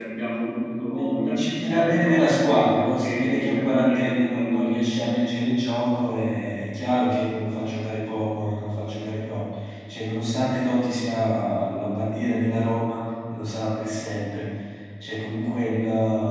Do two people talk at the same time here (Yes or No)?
Yes